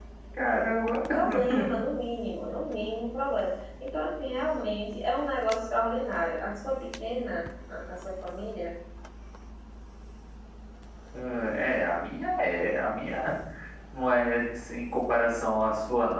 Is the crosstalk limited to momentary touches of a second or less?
Yes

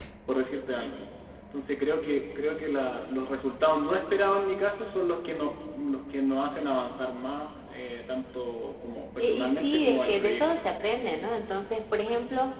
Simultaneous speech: Yes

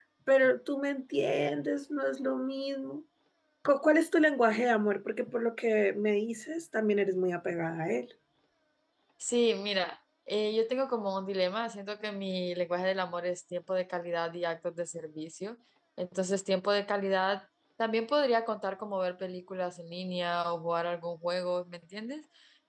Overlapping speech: No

